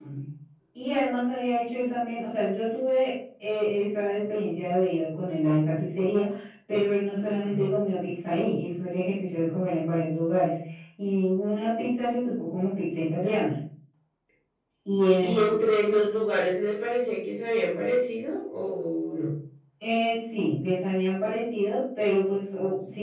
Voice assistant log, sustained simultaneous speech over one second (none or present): none